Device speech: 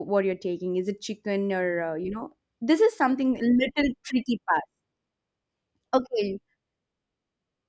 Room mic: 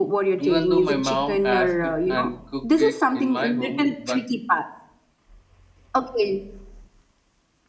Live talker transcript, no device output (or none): even though my mom asked and cook it in my home but